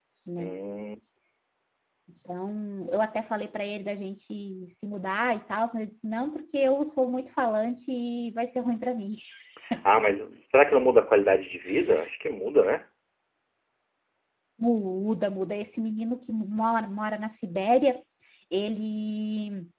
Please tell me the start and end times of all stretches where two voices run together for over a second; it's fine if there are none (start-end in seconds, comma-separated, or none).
none